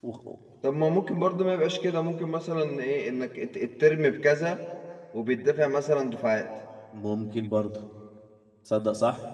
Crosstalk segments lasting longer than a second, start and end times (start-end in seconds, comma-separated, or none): none